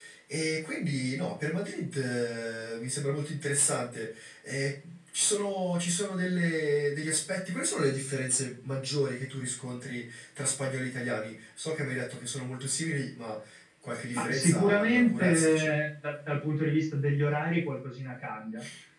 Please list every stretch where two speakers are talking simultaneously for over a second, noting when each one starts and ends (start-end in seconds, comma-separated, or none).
14.1-15.7